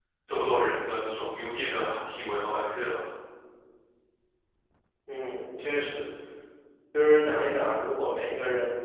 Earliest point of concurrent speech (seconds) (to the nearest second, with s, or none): none